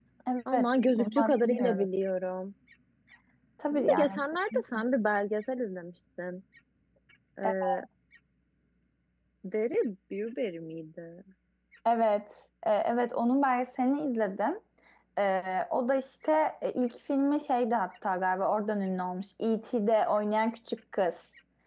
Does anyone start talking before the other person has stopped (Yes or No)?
Yes